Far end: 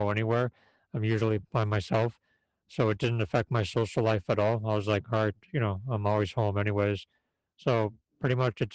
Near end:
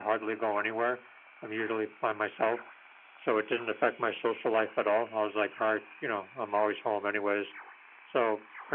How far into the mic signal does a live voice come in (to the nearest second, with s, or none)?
none